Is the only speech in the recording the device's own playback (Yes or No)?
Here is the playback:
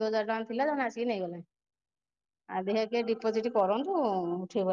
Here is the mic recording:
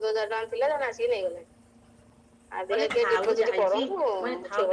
No